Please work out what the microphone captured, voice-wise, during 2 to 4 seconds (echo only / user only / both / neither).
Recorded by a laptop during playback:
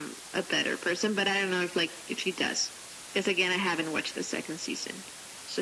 echo only